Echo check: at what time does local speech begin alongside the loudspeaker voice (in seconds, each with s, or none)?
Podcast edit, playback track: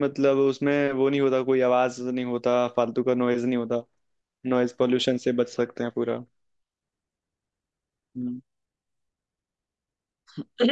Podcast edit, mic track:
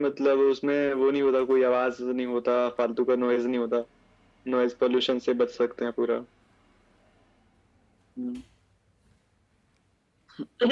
none